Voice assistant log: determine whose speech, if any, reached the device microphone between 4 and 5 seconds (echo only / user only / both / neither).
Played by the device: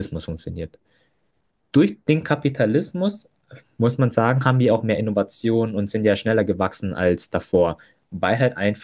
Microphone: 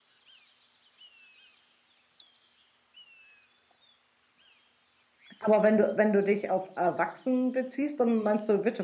neither